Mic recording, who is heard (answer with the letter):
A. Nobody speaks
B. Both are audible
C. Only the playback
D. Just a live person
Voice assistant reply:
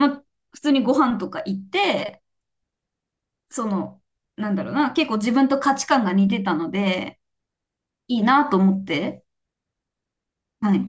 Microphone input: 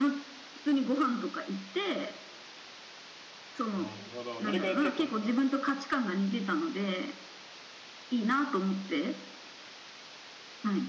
B